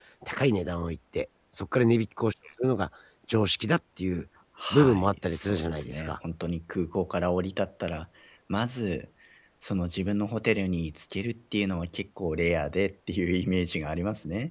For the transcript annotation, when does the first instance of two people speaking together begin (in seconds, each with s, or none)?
4.7 s